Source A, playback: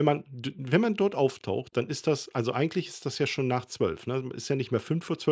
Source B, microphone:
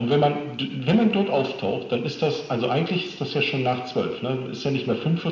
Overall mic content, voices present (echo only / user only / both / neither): echo only